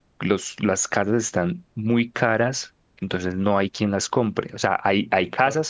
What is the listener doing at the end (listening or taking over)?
listening